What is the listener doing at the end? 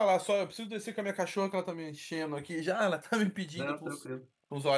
listening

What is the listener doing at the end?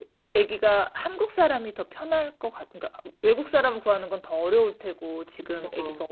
listening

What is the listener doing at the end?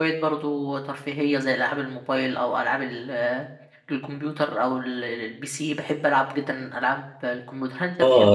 taking over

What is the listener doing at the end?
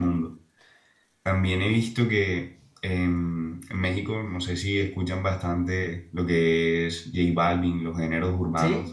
listening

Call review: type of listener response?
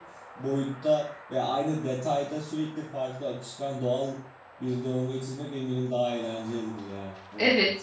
taking over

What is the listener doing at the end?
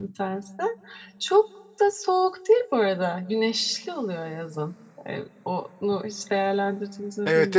taking over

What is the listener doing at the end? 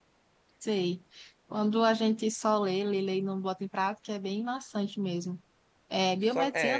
listening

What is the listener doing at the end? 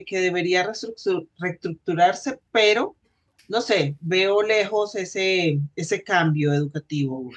taking over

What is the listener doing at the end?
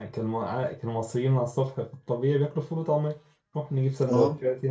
listening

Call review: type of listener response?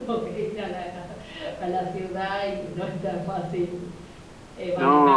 listening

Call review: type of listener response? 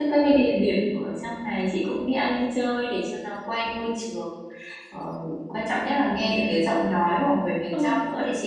listening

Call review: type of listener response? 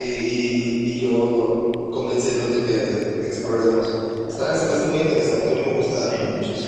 taking over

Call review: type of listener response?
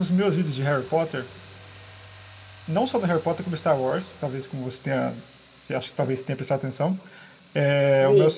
listening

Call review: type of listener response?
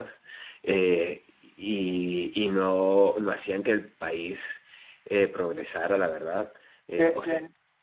listening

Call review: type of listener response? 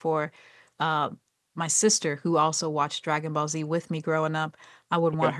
listening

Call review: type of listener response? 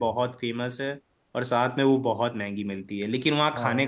listening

